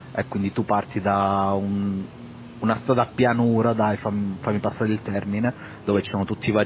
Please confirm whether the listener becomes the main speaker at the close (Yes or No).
No